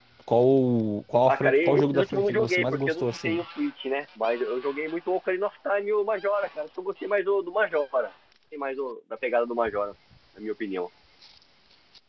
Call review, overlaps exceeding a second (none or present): present